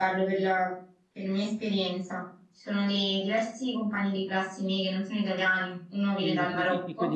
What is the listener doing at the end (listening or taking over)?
taking over